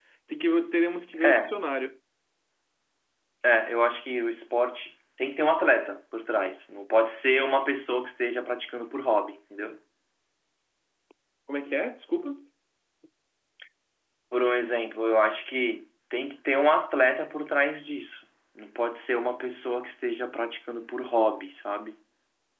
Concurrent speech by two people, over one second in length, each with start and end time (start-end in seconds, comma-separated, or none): none